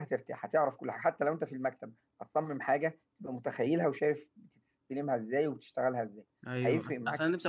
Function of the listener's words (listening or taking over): taking over